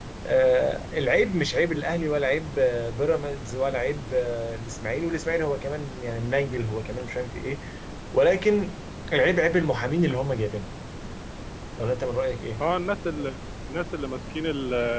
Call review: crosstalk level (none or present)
none